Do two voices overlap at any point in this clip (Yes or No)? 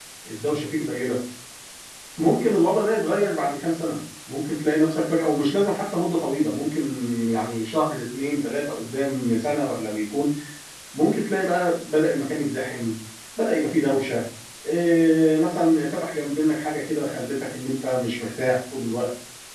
No